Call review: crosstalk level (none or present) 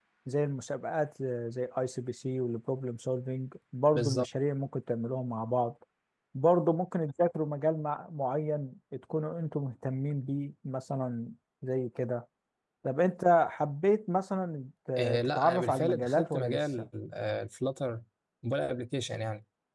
present